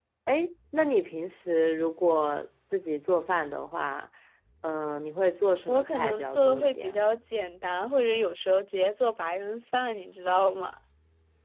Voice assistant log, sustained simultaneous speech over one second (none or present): present